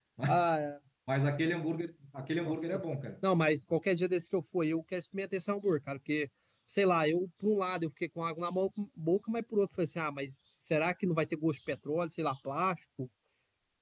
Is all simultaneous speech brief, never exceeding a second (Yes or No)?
Yes